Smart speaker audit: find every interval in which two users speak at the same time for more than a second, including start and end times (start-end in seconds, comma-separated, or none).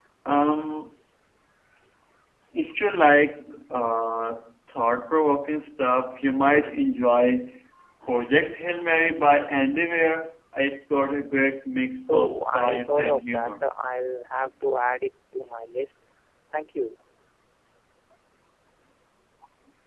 12.1-13.6